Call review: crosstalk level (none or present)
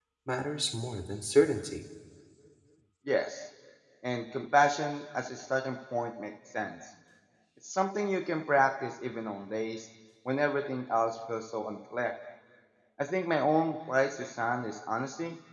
none